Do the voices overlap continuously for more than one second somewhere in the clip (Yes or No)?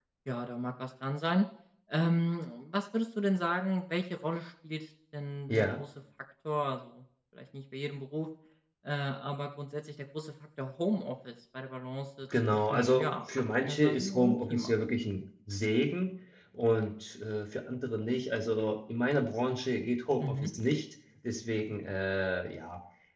Yes